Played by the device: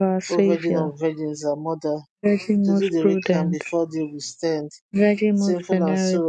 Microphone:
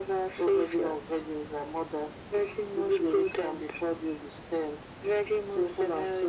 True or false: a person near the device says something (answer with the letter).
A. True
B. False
B